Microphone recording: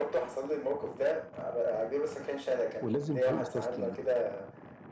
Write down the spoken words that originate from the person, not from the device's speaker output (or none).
ولازم فريق يستسلم